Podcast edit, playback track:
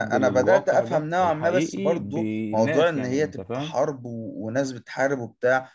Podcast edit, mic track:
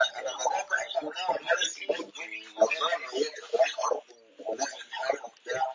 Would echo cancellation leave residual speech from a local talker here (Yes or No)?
No